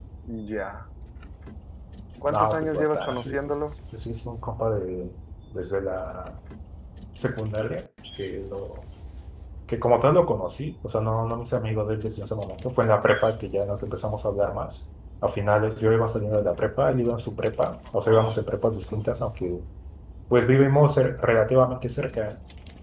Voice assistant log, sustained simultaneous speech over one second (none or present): present